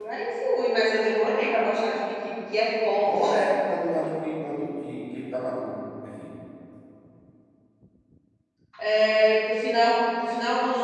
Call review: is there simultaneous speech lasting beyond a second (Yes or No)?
No